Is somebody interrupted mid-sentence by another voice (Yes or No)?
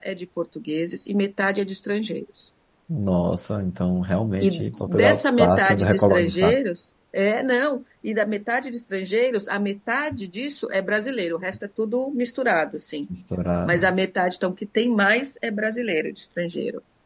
Yes